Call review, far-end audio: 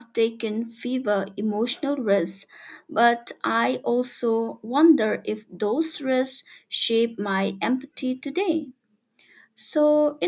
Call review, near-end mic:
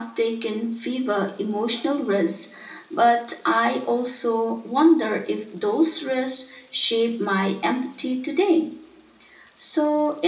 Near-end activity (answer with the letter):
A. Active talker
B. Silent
B